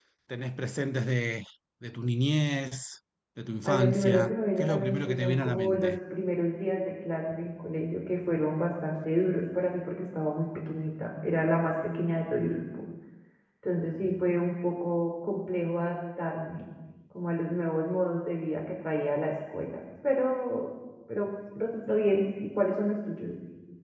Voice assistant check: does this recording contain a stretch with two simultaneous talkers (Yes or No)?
Yes